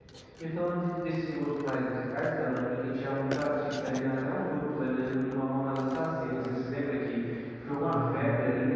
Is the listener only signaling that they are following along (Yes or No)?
Yes